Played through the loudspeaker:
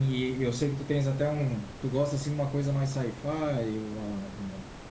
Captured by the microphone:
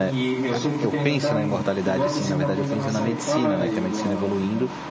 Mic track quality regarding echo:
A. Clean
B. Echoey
B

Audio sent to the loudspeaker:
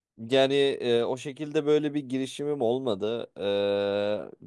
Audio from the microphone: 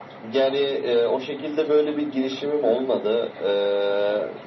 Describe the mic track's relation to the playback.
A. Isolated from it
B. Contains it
B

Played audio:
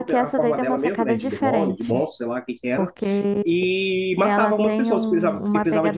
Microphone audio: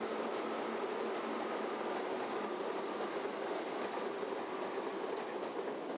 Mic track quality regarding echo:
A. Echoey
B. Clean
B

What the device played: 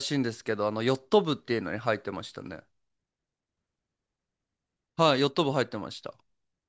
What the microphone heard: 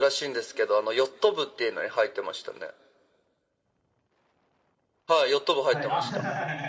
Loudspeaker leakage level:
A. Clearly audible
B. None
A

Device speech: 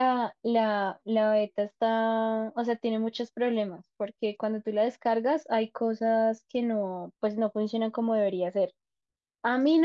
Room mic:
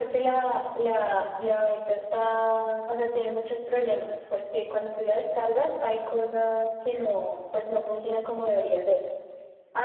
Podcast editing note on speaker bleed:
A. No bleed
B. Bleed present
B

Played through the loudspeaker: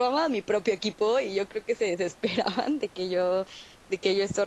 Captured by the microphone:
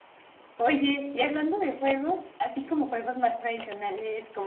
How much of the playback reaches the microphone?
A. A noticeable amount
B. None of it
B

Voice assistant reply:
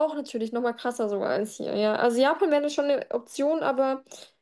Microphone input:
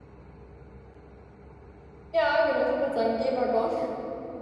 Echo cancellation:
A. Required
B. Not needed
B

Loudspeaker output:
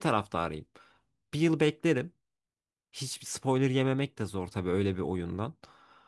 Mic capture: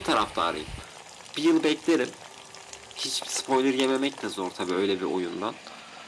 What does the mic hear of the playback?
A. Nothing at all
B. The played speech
B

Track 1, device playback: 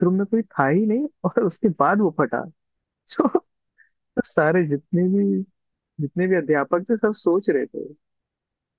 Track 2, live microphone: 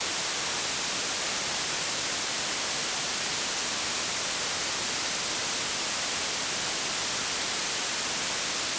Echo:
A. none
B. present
A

